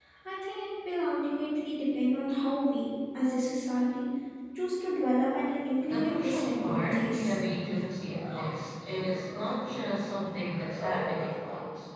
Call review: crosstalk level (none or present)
present